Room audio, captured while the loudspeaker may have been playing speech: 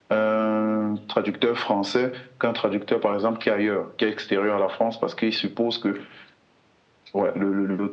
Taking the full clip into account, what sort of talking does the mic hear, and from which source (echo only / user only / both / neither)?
echo only